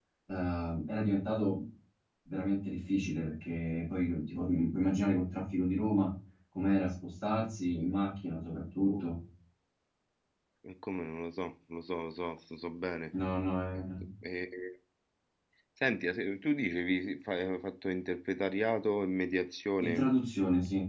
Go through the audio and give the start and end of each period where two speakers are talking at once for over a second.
none

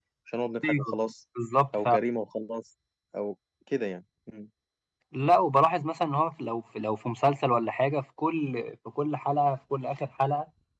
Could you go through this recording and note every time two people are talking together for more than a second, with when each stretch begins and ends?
none

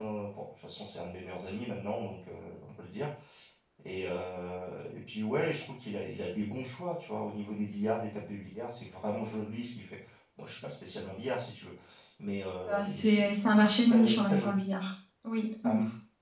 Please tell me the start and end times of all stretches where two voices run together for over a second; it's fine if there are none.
12.7-14.5

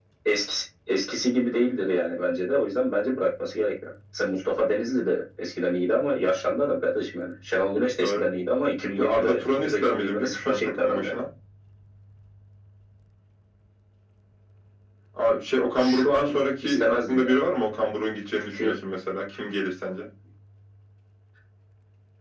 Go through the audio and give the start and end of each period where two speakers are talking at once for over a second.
8.9-11.2, 15.8-17.4

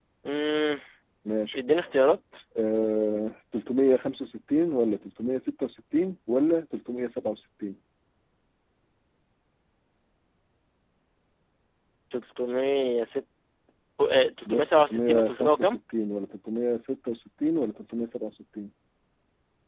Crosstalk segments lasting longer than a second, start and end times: 14.5-15.8

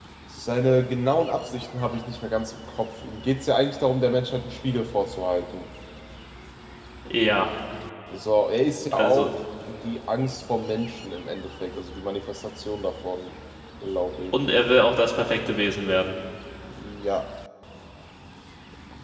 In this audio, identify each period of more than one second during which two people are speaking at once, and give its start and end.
none

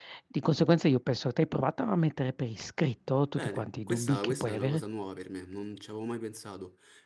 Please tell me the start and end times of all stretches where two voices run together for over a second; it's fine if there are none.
3.4-4.8

